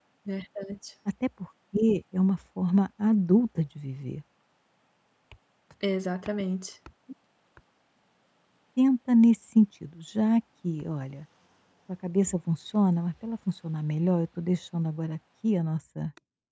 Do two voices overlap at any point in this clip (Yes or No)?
No